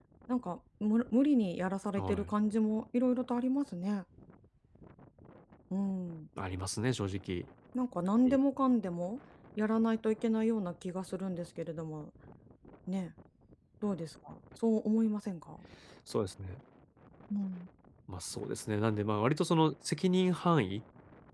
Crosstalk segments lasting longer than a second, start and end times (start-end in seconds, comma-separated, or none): none